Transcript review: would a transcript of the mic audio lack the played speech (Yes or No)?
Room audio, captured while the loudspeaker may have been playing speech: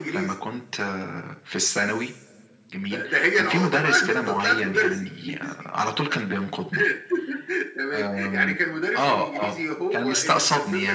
No